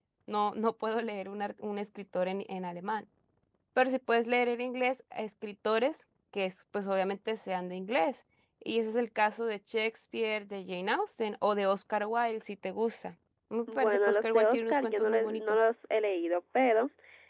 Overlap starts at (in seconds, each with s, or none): 13.7 s